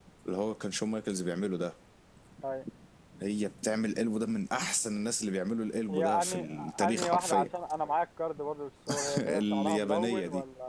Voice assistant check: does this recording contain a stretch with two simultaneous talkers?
Yes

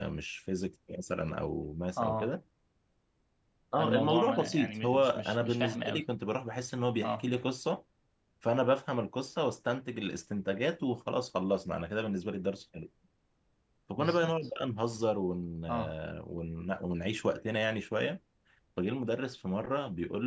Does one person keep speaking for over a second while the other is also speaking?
Yes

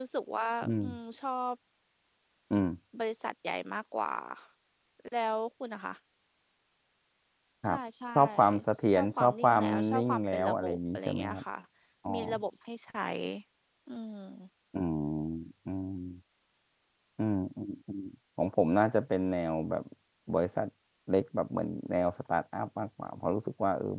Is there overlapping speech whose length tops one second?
Yes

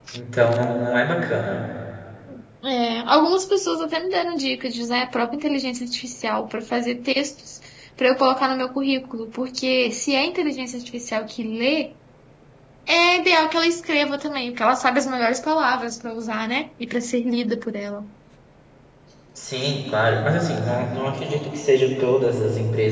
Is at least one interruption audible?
No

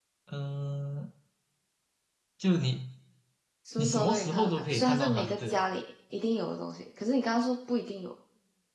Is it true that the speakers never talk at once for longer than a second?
No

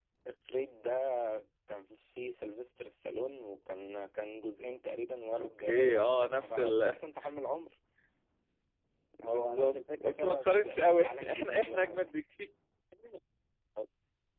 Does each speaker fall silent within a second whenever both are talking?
No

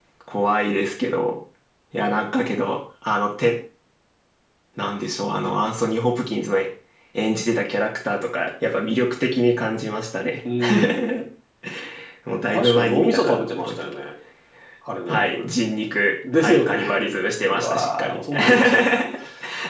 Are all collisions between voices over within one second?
No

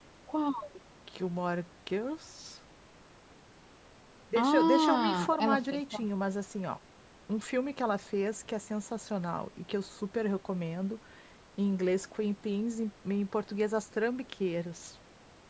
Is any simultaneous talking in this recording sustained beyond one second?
Yes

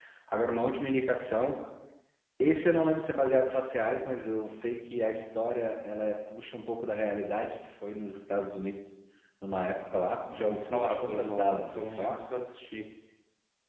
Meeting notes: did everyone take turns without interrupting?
No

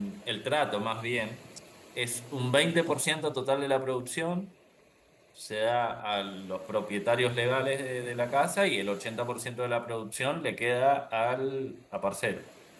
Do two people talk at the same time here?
No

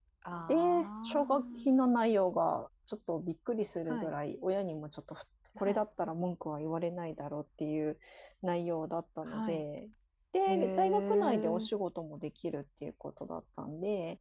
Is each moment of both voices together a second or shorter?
No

